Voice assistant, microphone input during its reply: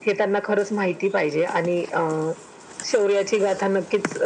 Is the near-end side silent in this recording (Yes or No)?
Yes